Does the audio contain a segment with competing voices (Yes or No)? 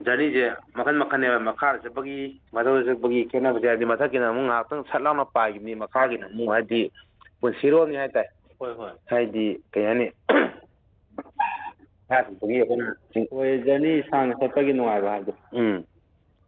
No